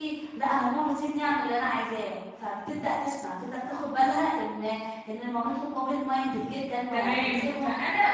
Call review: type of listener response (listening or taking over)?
taking over